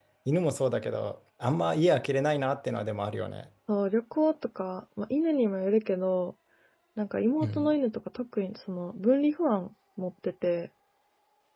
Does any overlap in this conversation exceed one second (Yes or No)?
No